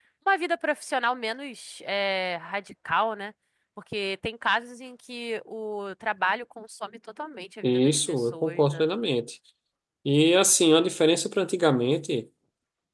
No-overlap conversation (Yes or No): No